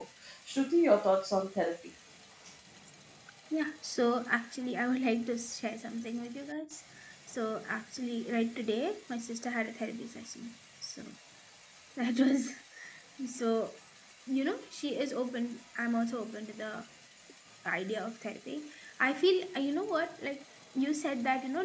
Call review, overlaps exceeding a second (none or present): none